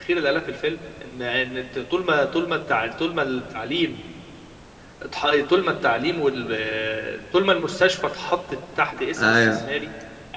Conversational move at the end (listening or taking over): listening